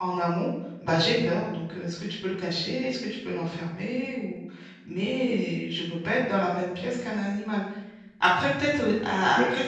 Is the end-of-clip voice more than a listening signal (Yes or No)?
No